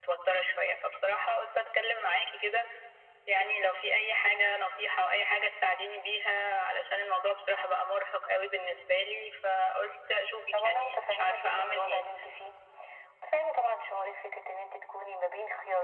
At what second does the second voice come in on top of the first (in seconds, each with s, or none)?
10.5 s